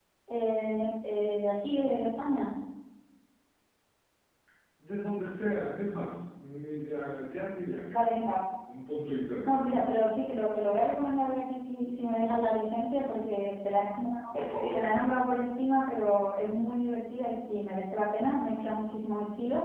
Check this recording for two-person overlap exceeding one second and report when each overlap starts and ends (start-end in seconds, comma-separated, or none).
none